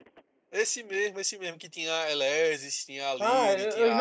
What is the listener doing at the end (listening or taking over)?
taking over